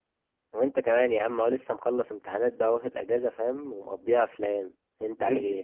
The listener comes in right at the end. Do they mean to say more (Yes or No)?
Yes